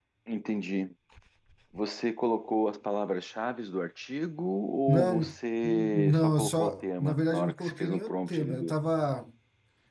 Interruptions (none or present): present